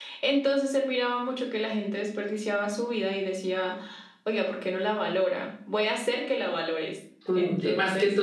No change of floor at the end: No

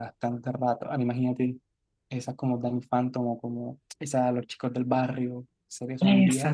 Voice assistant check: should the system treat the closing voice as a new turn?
Yes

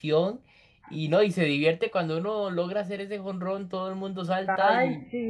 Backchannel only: No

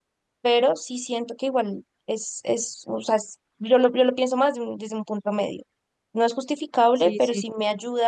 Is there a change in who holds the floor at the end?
No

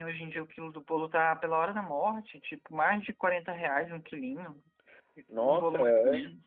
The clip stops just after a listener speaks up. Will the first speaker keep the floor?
No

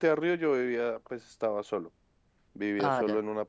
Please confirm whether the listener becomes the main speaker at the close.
No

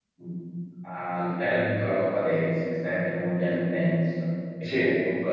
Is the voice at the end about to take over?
No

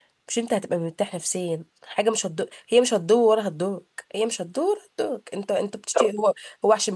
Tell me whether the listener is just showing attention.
Yes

